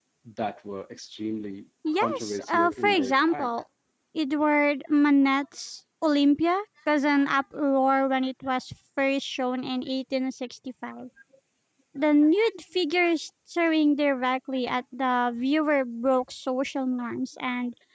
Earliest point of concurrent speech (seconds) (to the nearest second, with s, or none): 2 s